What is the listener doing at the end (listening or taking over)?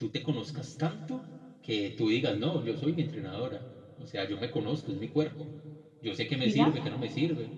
listening